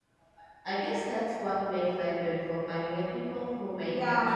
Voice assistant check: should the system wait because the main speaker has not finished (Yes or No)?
No